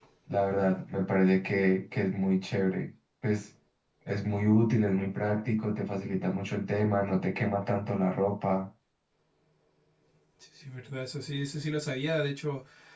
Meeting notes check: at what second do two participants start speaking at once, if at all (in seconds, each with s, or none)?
none